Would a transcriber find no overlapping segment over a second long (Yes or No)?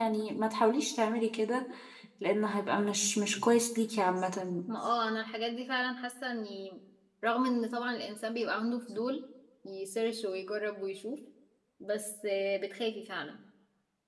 Yes